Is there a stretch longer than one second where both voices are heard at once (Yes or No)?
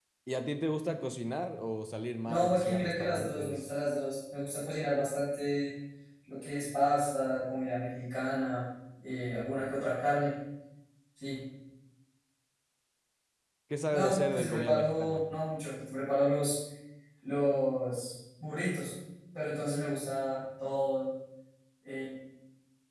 Yes